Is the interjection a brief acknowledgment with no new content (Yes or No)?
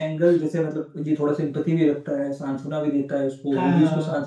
Yes